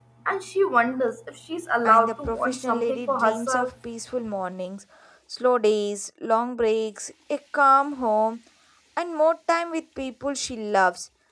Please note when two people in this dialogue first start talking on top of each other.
1.9 s

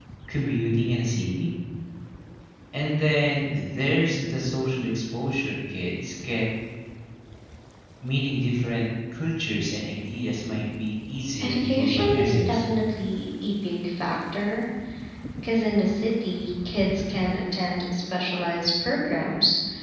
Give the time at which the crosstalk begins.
11.4 s

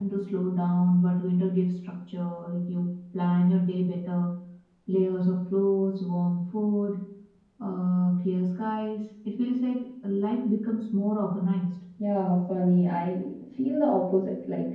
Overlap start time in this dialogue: none

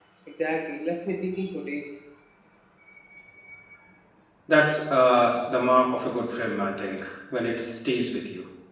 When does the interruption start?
none

